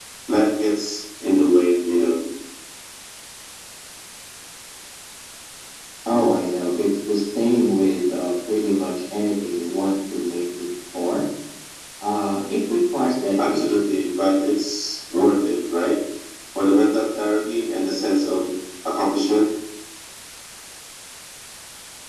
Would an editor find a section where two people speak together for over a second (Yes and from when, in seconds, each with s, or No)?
No